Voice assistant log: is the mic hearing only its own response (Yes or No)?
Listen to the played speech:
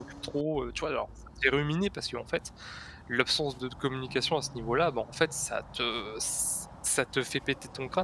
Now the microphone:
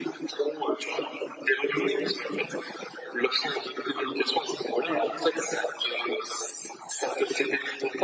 No